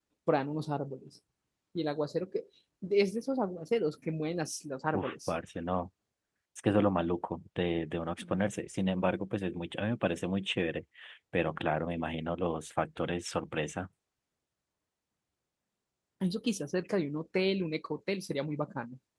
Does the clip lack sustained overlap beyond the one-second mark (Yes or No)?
Yes